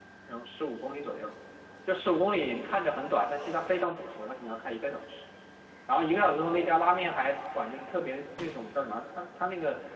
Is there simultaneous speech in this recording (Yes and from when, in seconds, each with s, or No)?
No